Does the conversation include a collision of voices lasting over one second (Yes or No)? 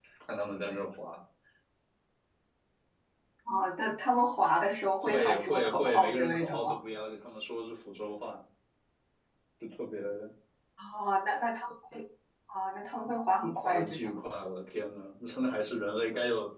Yes